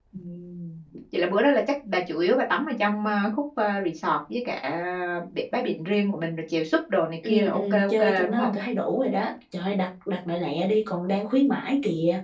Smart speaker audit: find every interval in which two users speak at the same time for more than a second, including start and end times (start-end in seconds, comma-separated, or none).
7.2-8.5